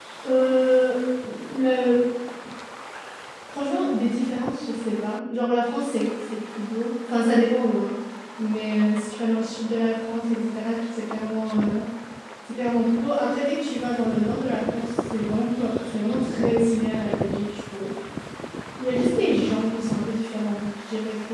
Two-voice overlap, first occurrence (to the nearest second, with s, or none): none